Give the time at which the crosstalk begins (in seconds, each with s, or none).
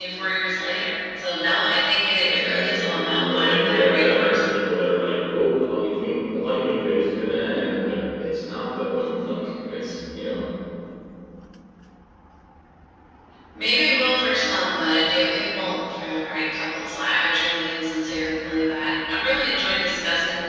2.2 s